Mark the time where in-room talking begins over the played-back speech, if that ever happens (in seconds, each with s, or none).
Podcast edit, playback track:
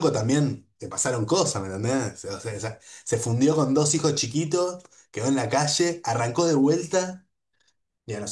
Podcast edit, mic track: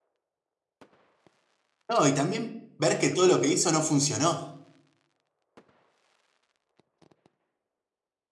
1.9 s